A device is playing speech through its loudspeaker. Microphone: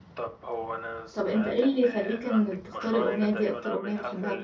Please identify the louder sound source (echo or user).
user